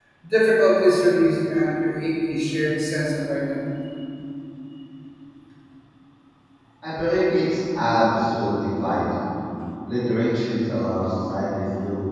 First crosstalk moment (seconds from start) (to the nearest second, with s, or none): none